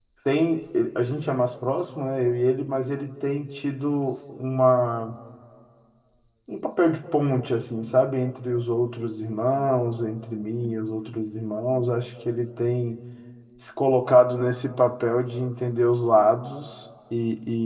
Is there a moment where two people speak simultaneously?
No

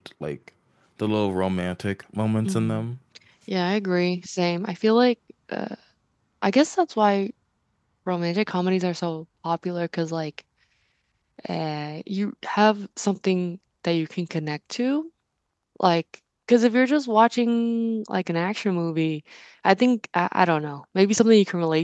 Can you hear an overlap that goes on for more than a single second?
No

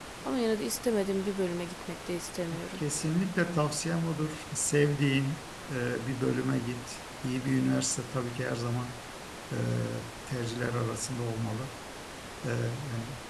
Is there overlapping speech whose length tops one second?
No

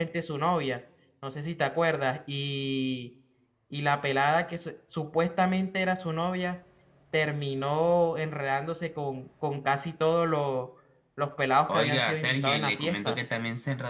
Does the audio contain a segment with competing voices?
Yes, from 11.7 s

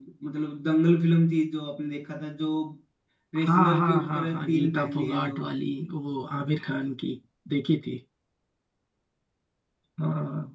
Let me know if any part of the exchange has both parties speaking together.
Yes, from 3.5 s

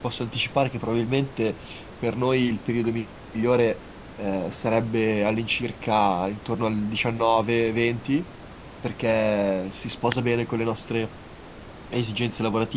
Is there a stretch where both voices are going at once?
No

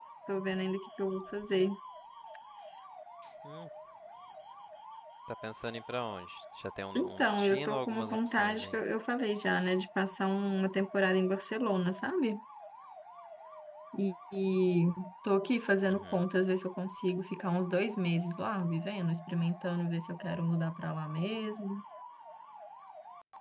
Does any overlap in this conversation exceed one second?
Yes, from 7.0 s

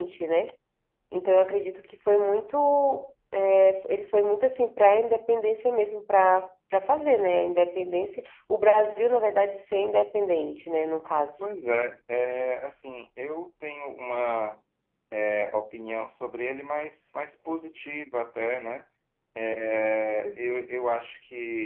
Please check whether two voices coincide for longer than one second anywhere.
No

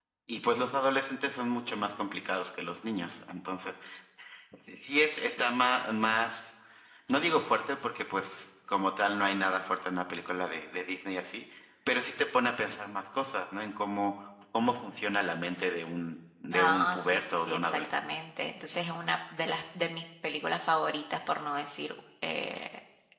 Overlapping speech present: Yes, from 16.5 s

